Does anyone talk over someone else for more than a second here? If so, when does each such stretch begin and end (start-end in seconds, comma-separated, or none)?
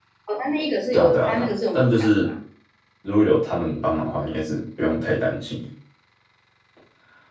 0.9-2.3